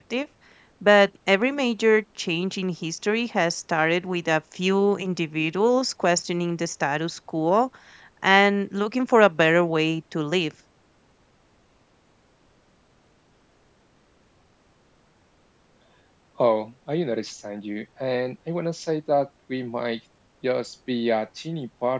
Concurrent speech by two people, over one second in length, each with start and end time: none

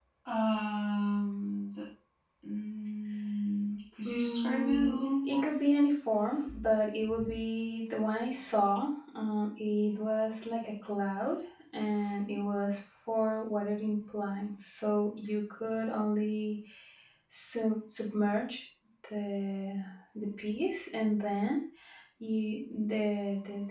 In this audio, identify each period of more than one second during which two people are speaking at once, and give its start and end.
4.0-5.5

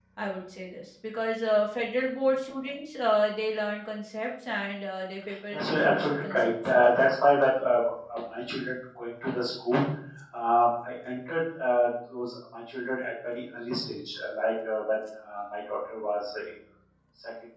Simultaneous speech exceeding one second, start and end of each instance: 5.5-6.8

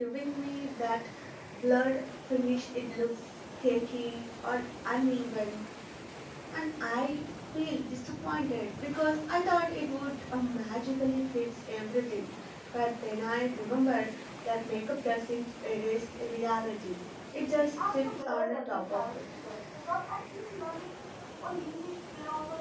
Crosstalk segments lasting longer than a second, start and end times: 17.9-19.2

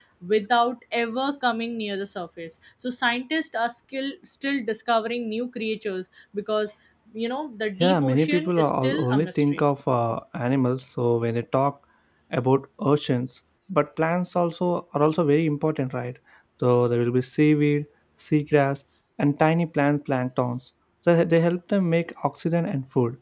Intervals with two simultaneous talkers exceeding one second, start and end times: 7.8-9.6

